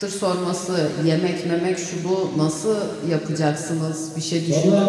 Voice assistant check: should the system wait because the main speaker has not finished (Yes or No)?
No